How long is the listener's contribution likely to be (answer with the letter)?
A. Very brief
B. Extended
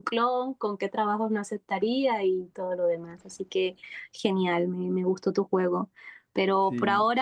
A